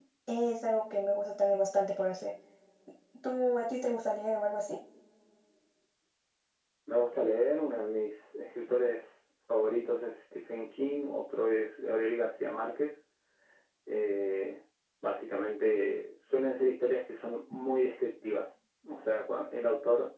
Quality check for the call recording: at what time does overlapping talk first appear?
none

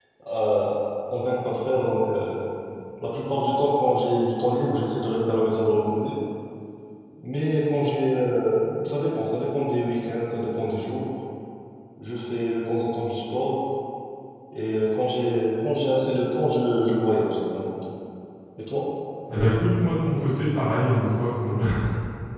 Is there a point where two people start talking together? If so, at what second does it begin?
none

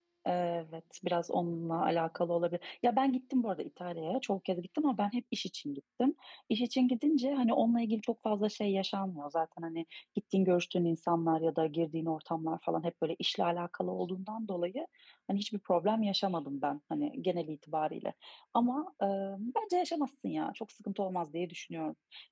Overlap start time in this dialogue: none

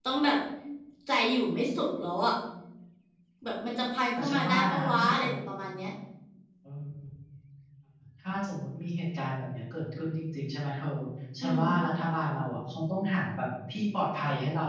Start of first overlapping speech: 4.2 s

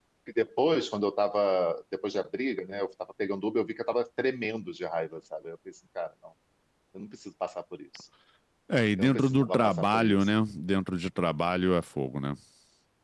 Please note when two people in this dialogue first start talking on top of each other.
9.0 s

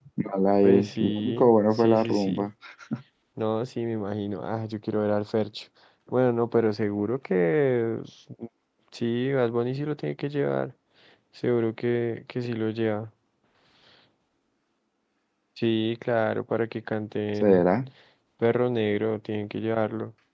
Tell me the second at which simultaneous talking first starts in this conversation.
0.6 s

